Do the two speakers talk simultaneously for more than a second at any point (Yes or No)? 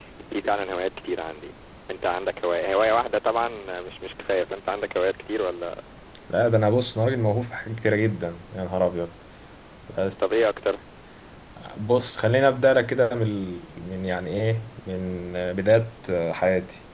No